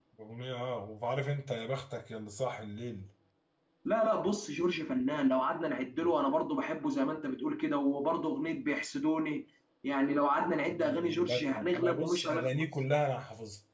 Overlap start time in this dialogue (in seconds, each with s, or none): 10.7 s